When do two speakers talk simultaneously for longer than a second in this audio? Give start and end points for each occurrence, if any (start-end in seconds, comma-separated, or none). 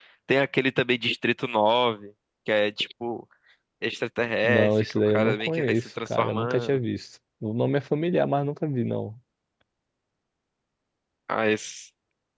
4.4-6.8